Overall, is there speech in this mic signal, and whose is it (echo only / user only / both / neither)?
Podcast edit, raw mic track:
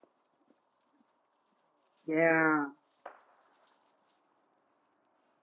user only